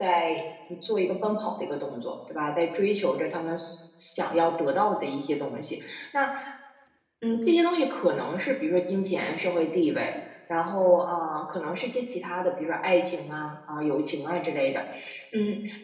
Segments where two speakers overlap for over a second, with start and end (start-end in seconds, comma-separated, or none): none